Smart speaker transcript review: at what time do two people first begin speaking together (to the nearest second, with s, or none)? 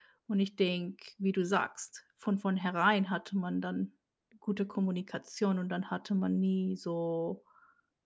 none